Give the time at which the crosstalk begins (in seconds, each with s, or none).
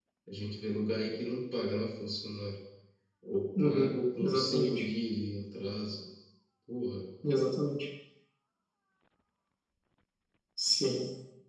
3.6 s